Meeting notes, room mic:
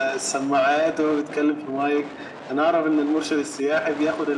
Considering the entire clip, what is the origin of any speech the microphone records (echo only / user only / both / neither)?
echo only